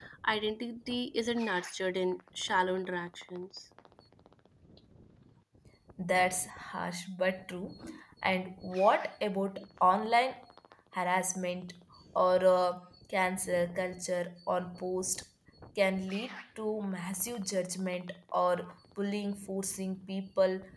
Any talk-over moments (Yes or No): No